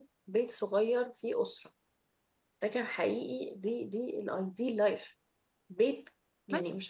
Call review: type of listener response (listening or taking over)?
listening